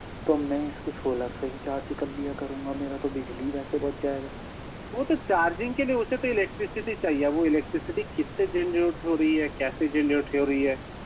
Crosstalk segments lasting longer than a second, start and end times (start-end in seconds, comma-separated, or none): none